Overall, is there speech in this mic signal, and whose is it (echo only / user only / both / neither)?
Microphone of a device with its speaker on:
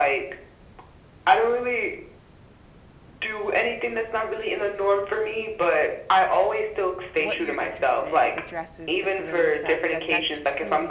both